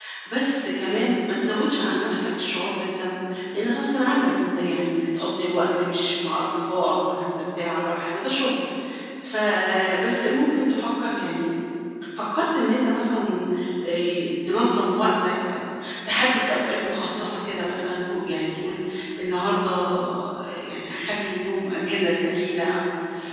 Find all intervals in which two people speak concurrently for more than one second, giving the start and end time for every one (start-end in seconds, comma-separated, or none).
none